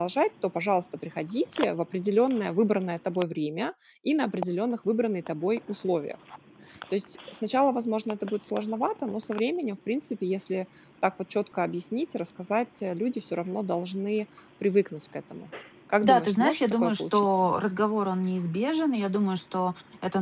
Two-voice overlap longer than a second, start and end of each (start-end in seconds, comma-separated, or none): 16.0-17.5